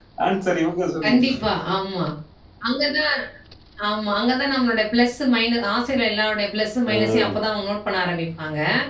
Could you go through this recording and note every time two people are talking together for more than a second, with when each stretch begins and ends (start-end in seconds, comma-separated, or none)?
none